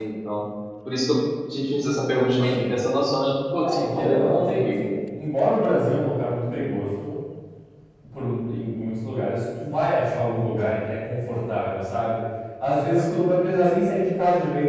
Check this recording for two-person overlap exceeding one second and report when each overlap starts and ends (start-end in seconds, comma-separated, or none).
3.6-4.9